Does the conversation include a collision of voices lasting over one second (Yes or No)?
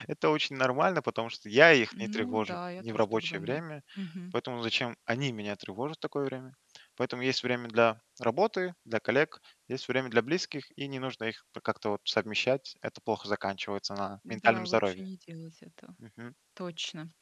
Yes